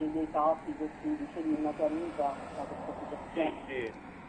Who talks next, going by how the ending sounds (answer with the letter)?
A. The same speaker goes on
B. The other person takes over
B